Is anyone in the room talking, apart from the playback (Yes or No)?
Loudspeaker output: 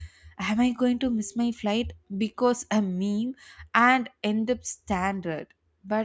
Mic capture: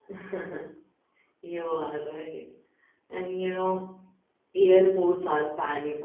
Yes